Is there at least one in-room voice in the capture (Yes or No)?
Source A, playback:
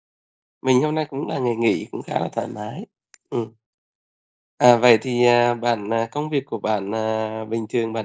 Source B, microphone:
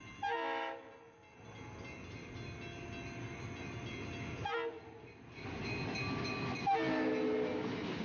No